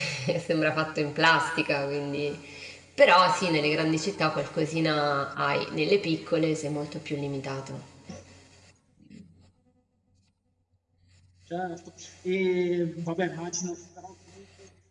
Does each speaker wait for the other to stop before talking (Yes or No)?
Yes